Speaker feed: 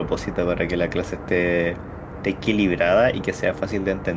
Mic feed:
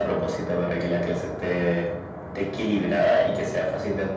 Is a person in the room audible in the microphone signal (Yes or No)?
No